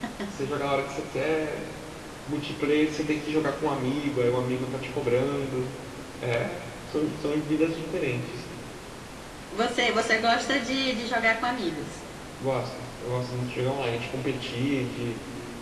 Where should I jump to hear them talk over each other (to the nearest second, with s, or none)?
none